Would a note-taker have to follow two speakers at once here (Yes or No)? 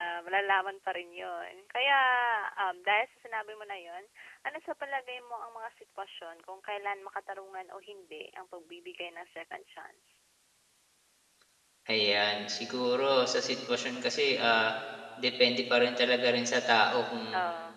No